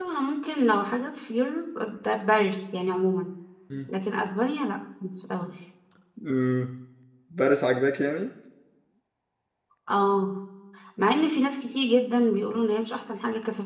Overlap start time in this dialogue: none

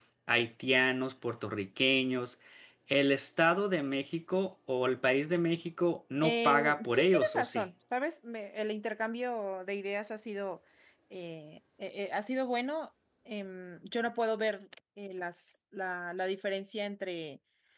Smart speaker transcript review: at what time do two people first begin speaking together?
6 s

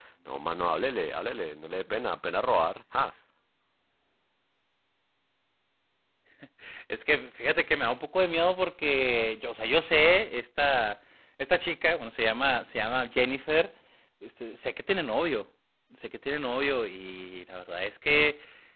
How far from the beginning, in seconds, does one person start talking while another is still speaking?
none

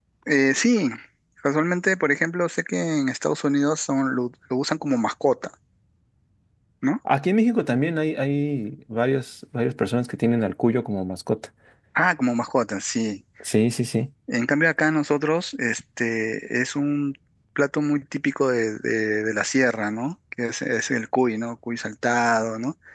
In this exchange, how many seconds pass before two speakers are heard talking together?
none

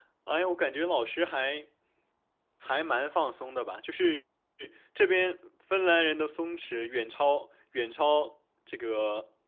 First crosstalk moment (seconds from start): none

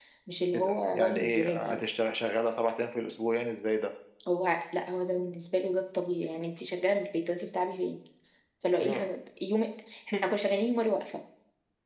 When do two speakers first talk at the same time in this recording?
1 s

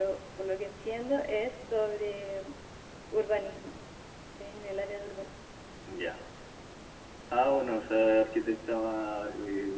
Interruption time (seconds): none

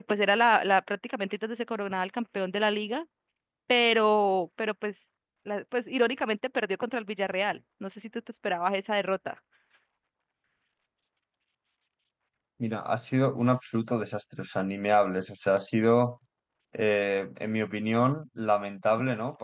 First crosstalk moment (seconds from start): none

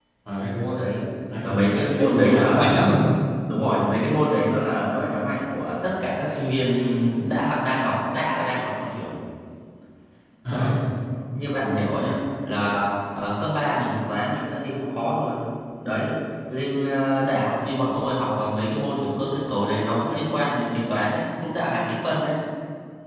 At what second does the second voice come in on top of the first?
1 s

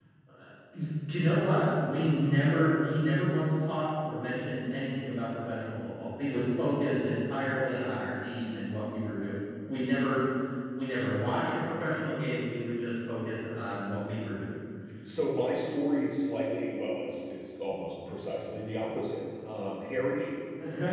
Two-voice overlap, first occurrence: none

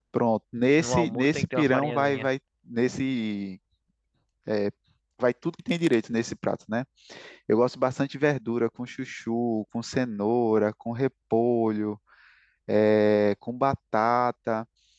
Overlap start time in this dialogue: 1 s

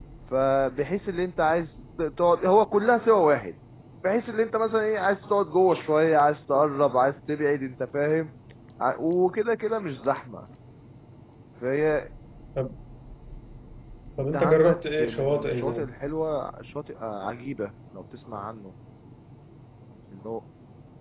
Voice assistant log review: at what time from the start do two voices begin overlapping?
14 s

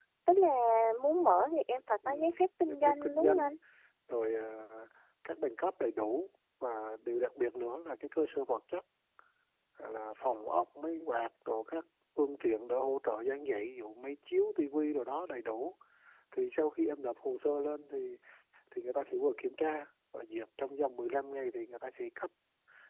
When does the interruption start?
2 s

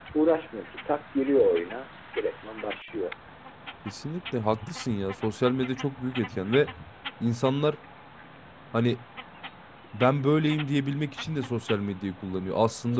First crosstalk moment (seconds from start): none

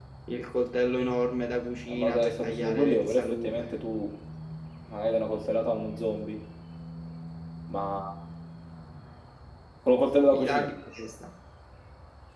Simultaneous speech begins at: 2 s

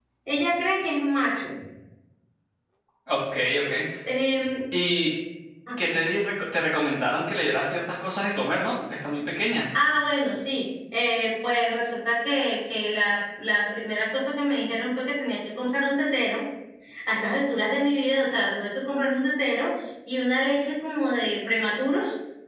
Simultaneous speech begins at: none

